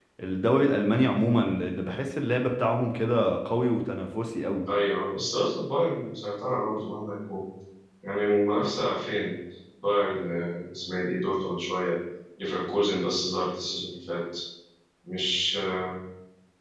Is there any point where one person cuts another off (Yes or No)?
No